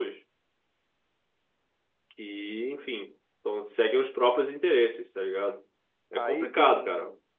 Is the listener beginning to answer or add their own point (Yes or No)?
Yes